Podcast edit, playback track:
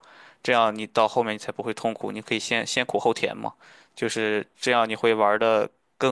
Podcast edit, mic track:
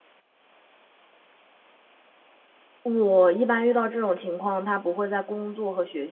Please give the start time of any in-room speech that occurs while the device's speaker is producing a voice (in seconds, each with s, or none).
2.8 s